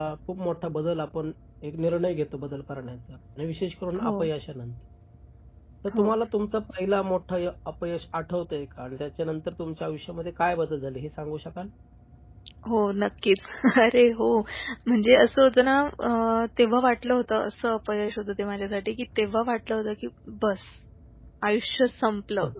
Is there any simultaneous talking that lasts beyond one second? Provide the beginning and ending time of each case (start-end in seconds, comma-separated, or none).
none